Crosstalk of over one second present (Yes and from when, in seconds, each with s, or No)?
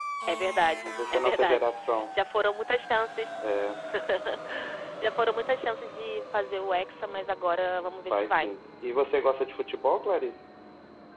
Yes, from 0.8 s